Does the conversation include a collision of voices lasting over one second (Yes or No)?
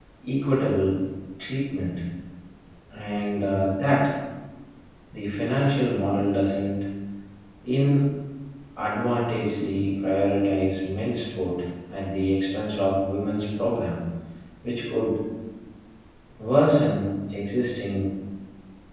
No